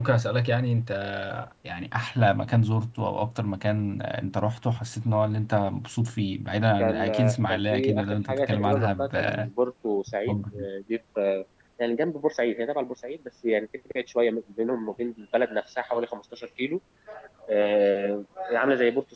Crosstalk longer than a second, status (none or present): present